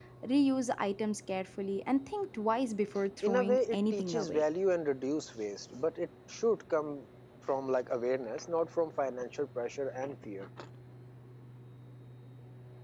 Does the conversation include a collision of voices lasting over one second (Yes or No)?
Yes